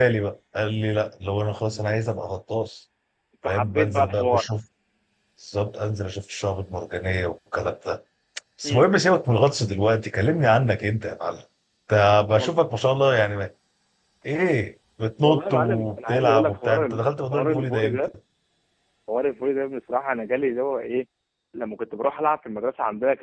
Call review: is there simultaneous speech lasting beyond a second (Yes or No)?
Yes